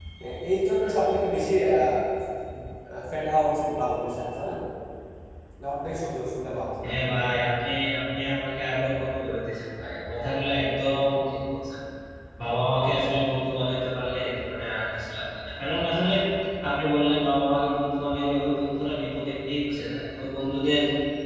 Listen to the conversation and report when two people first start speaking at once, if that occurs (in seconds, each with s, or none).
none